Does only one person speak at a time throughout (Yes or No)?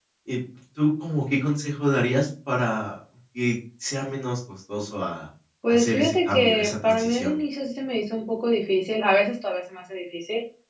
No